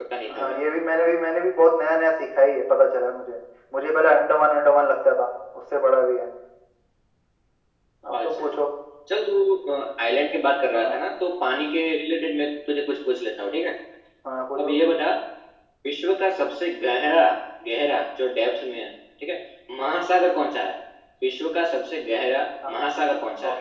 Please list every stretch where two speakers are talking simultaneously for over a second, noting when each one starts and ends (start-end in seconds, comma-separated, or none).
none